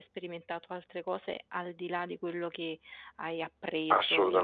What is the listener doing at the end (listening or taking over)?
taking over